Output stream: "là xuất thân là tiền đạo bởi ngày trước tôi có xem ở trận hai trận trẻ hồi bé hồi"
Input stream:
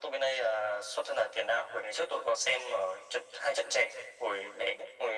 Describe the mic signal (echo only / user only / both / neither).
echo only